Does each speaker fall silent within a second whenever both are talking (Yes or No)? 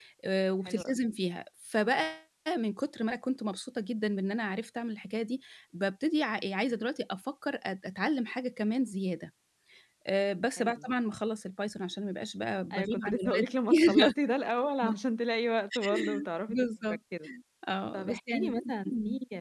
No